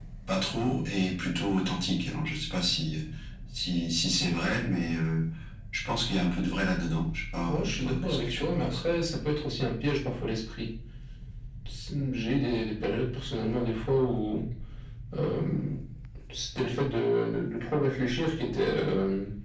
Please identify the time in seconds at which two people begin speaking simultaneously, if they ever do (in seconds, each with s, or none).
7.5 s